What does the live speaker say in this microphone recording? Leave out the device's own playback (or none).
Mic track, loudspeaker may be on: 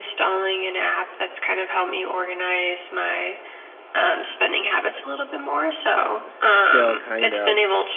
still kind of